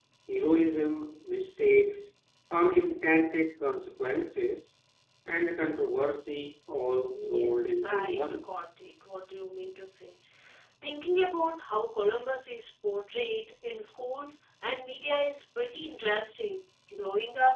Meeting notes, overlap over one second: present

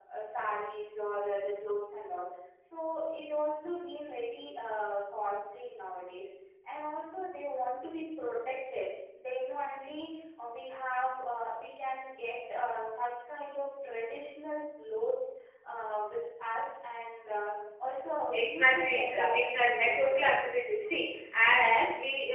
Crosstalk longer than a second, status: present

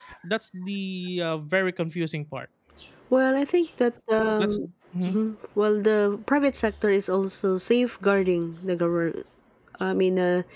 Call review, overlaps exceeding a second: none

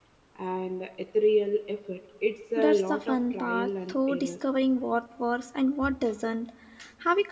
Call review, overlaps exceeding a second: present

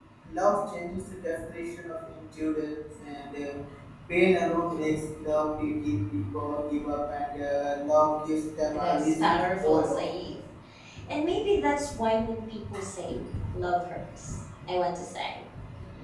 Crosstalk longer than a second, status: present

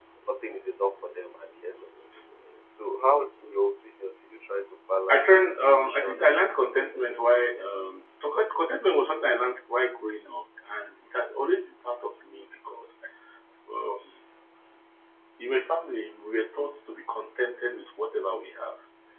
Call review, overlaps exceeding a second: present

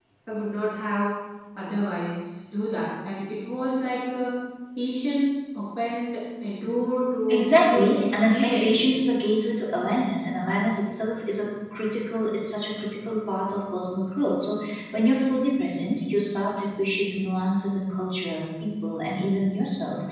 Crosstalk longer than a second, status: present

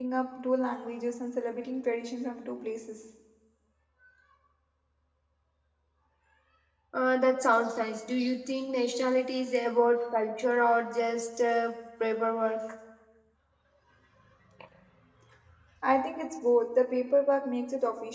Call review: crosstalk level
none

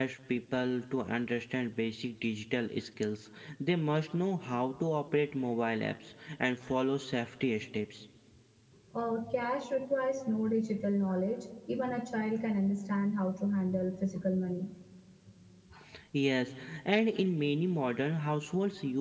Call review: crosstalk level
none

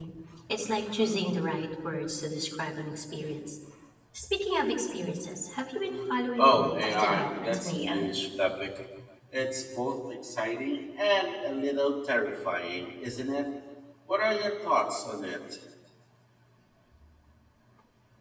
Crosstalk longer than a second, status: present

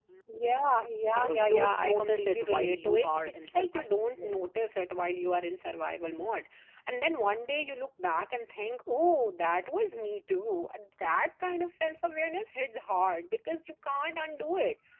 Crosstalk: present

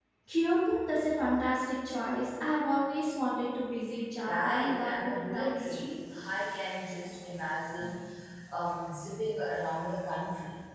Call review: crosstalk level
present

